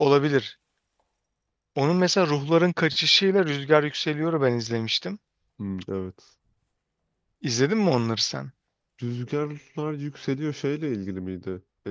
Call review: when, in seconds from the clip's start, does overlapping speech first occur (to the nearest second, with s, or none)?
none